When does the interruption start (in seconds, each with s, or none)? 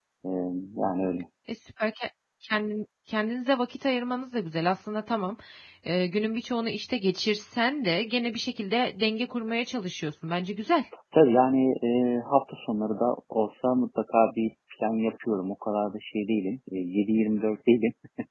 none